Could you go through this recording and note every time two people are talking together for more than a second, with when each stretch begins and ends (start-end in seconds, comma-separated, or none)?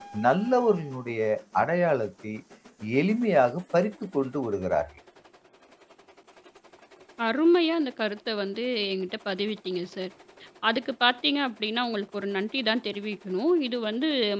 none